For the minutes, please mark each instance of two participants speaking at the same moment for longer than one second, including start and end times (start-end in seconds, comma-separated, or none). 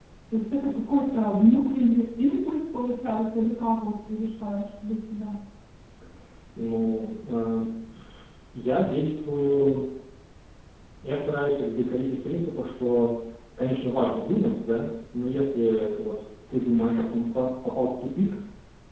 none